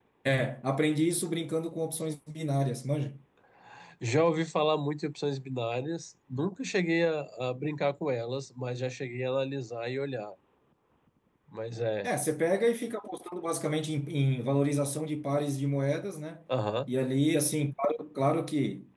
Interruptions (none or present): none